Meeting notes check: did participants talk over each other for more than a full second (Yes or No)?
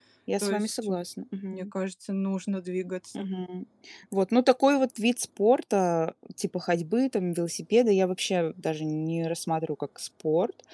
No